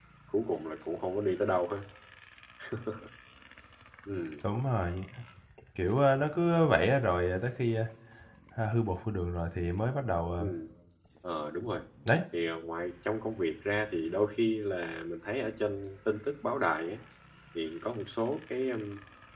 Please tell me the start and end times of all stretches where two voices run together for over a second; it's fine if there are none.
none

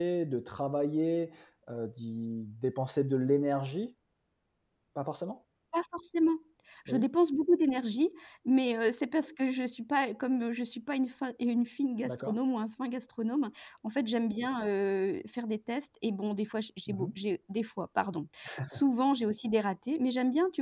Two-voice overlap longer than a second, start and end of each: none

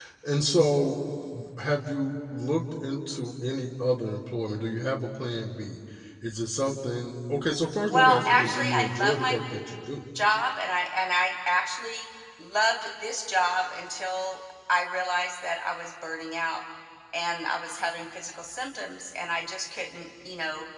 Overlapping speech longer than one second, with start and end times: 7.9-9.4

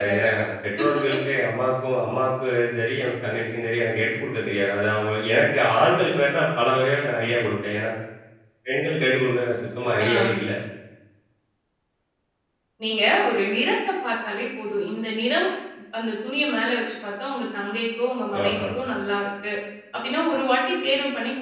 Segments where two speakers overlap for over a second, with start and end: none

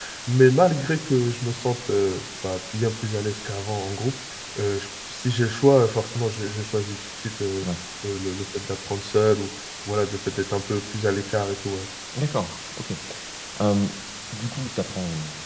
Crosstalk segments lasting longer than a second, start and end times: none

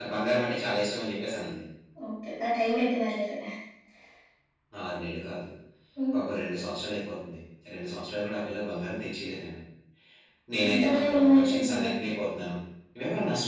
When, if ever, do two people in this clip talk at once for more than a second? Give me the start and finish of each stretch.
10.6-11.9

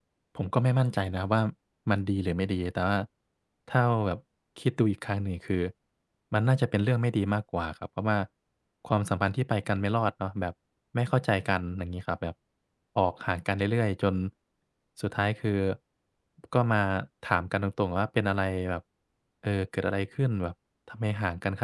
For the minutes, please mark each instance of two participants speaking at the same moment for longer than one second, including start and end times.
none

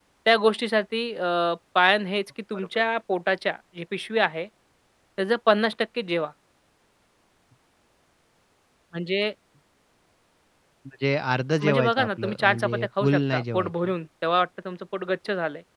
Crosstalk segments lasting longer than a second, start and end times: 11.6-13.9

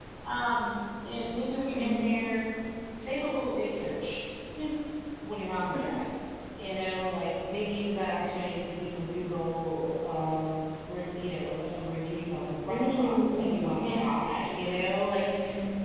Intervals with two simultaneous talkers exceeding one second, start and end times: 12.7-14.0

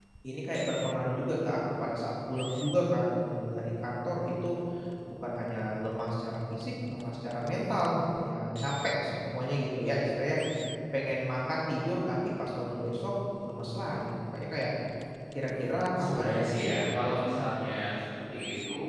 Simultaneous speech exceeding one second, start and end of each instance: 16.0-17.5

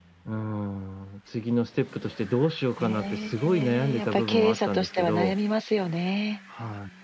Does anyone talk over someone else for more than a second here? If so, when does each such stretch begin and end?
2.8-5.3

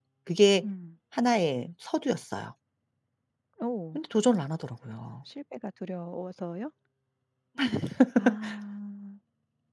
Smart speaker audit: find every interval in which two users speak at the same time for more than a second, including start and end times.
none

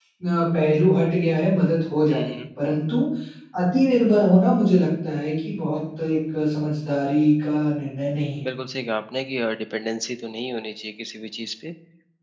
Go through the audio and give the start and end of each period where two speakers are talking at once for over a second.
none

